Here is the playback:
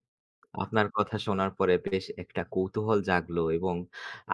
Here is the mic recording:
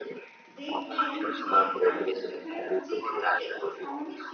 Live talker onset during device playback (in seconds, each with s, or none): 0.6 s